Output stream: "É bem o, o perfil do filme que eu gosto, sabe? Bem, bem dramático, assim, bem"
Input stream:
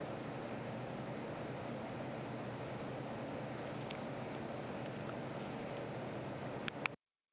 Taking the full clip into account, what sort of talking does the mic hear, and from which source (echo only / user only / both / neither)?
neither